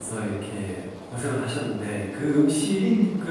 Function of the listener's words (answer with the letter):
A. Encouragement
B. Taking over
A